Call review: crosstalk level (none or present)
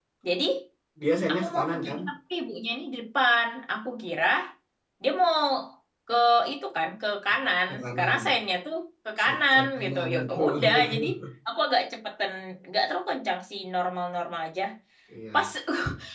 present